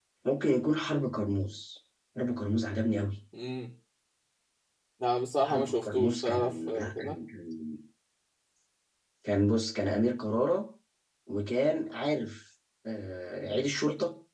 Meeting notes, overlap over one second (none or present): present